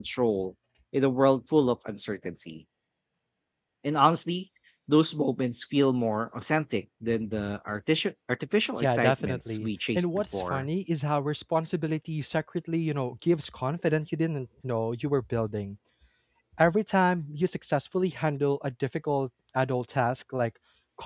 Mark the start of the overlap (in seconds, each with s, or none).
8.8 s